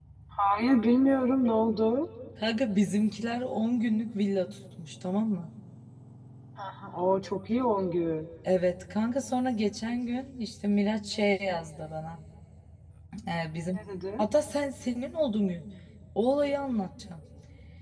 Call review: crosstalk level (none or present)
none